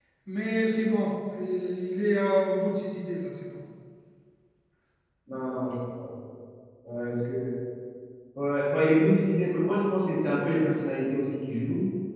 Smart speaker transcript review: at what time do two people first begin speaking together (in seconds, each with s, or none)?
none